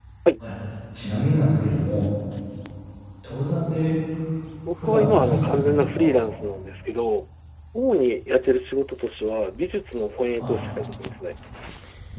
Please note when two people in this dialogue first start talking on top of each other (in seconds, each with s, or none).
4.7 s